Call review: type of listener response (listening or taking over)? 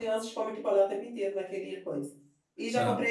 listening